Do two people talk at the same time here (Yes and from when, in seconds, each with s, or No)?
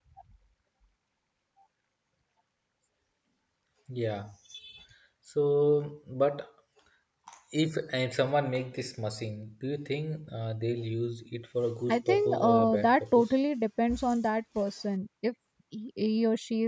Yes, from 11.9 s